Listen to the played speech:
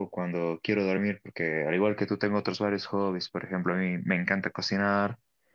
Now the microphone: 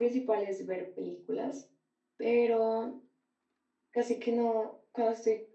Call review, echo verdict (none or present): none